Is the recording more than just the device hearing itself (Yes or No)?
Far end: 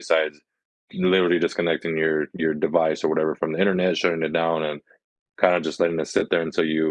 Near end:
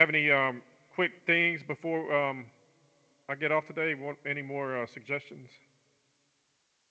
Yes